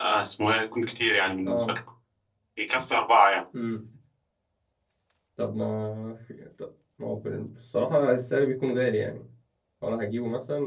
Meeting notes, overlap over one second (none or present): none